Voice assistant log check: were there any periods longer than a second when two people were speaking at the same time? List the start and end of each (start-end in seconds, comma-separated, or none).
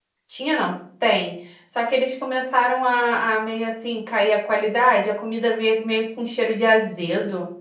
none